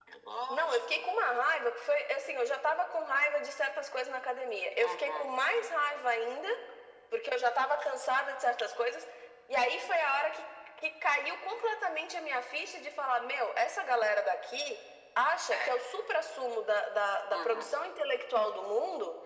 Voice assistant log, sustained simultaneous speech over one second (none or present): none